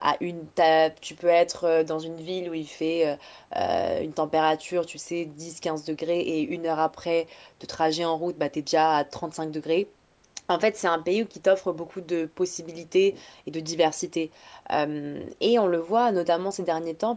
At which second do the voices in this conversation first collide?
none

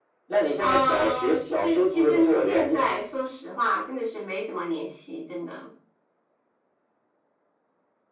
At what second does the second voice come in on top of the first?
0.6 s

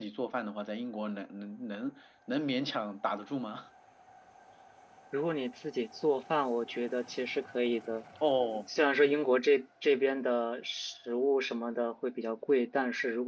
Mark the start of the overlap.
none

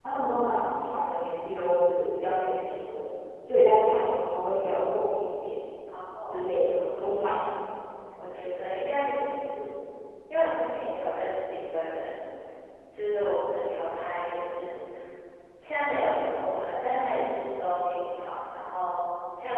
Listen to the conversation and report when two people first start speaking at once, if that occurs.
none

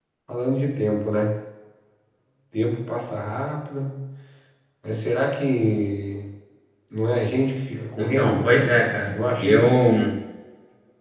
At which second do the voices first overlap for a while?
8.0 s

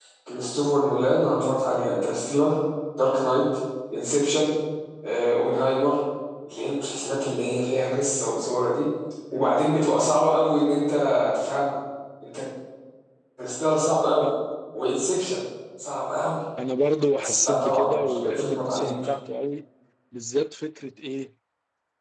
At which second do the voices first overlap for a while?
17.2 s

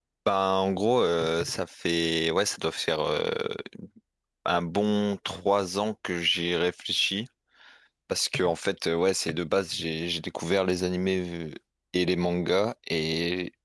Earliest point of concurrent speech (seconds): none

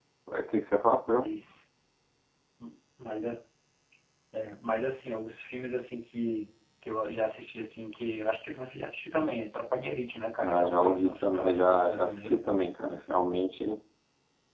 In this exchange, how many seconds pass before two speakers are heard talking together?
10.4 s

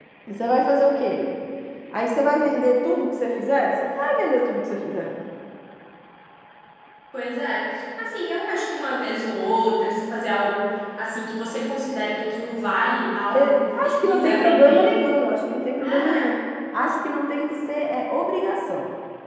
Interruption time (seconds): 13.3 s

